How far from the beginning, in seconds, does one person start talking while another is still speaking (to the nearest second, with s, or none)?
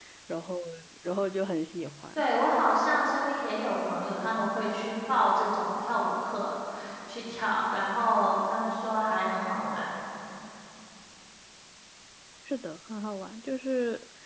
none